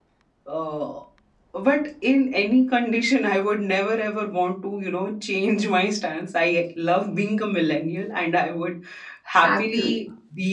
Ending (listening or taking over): listening